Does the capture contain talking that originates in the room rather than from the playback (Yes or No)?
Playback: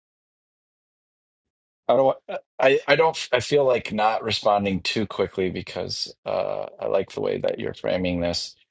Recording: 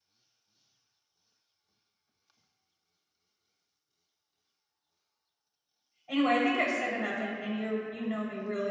Yes